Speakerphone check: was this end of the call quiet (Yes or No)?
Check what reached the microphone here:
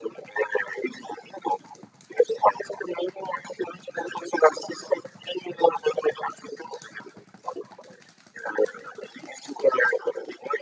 Yes